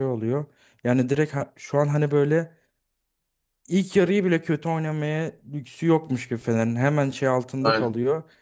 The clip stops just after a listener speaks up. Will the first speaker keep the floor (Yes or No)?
Yes